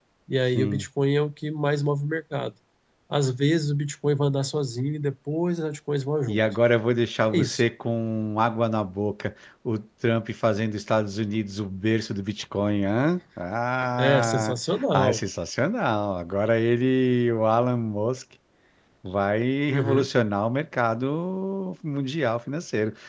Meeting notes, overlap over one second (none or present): none